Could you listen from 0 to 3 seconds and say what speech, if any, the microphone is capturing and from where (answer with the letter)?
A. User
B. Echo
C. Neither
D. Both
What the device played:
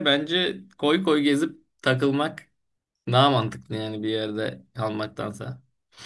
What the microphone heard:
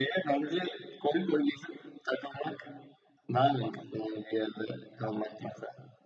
B